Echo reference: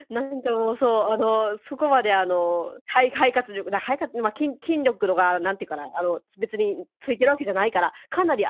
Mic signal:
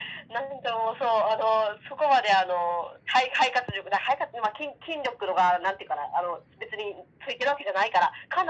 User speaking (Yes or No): No